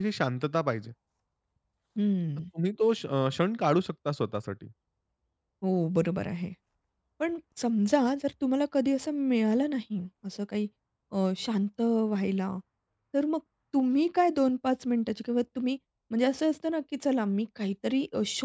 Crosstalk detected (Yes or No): No